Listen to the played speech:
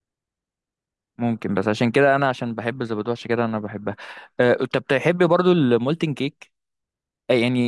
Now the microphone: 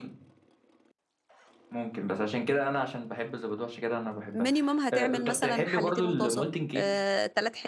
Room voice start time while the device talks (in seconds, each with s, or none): 4.3 s